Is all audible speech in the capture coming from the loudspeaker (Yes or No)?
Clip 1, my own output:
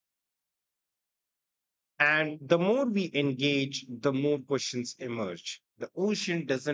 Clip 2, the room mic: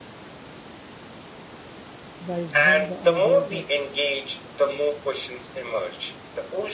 No